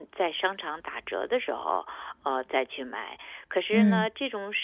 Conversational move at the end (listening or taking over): listening